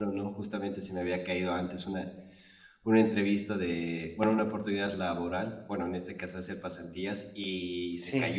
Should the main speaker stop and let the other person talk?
No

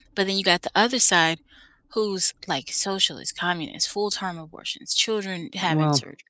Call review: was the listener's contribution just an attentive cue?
Yes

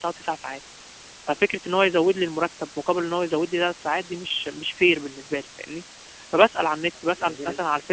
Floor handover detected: No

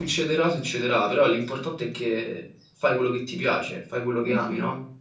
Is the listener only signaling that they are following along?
No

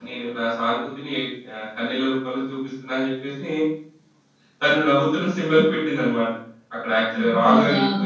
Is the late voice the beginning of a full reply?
No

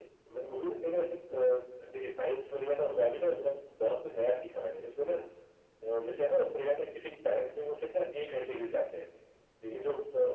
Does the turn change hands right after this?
No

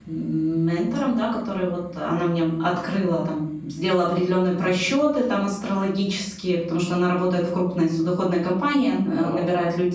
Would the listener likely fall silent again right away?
Yes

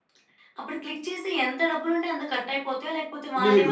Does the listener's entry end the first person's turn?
Yes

